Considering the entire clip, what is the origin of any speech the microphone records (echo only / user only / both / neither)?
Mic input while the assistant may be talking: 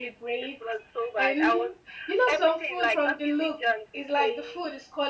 both